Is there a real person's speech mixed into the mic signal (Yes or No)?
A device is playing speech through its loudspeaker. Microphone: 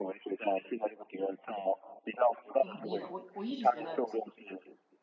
Yes